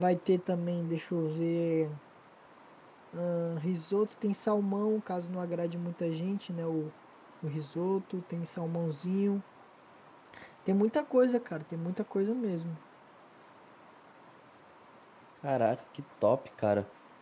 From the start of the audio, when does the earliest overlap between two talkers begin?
none

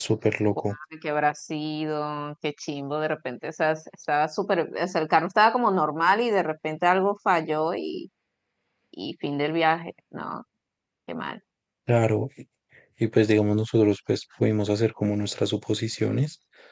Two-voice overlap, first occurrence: none

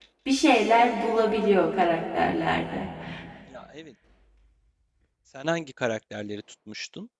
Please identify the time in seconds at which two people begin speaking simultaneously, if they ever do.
none

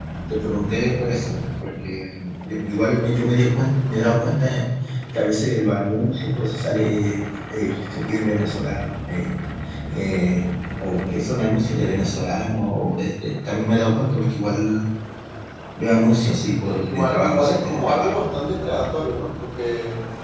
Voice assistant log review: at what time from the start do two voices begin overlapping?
17 s

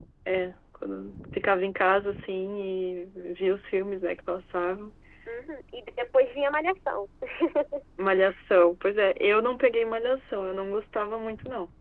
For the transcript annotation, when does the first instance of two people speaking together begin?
none

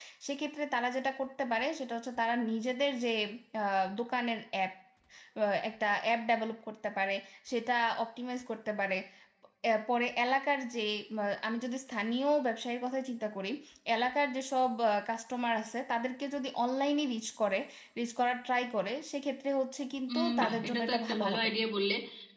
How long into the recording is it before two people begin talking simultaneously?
20 s

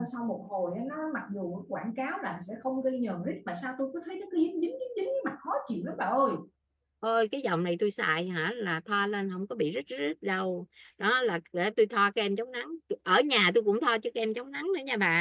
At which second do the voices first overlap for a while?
none

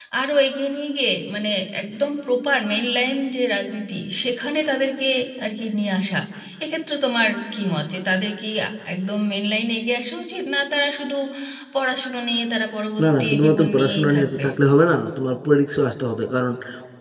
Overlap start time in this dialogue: 13 s

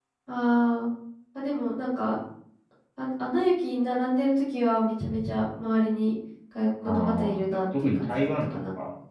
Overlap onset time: 7 s

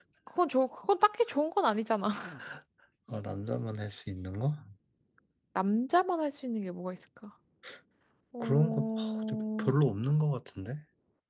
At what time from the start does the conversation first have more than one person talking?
8 s

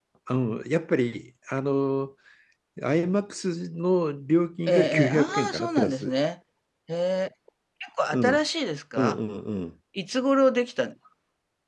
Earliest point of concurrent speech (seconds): 5 s

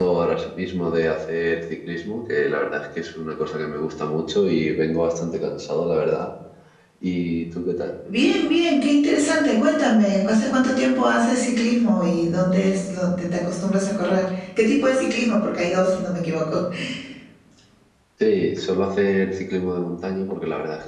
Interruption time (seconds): none

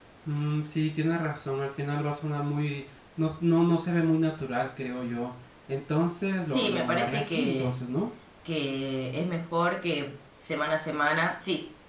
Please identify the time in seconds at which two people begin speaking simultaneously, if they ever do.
6 s

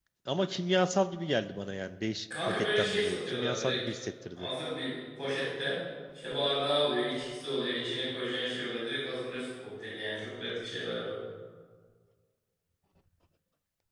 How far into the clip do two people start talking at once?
2 s

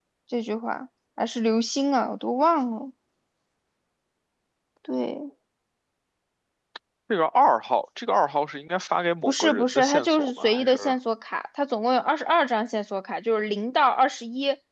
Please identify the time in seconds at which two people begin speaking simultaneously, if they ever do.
9 s

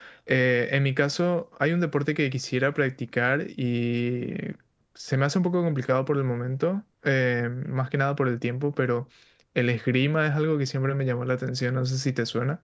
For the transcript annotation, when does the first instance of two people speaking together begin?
none

